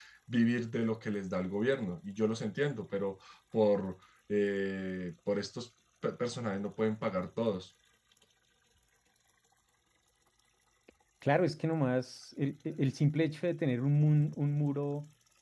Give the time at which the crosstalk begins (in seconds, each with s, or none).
none